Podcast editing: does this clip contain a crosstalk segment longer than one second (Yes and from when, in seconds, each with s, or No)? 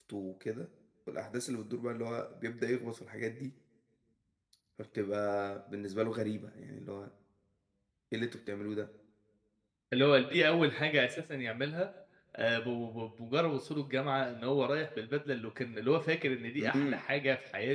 No